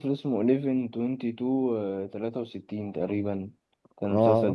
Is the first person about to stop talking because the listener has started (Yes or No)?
Yes